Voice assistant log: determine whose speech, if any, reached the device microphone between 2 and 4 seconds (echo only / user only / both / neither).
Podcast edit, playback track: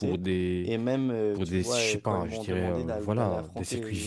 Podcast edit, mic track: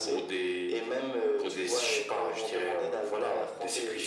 echo only